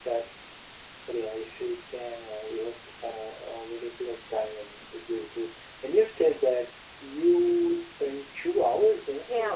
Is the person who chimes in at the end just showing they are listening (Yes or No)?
No